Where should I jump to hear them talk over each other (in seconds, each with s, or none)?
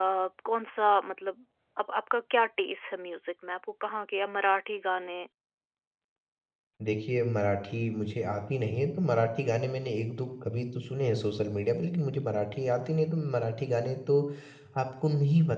none